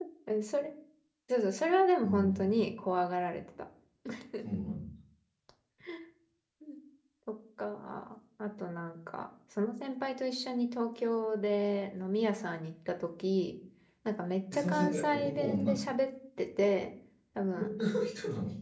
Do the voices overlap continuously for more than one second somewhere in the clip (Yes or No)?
Yes